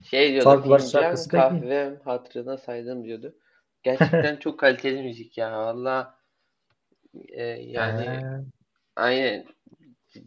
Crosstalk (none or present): present